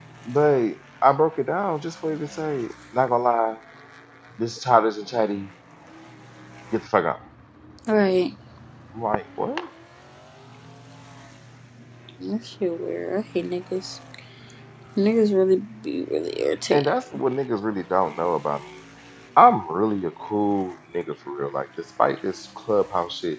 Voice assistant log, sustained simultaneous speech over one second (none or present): none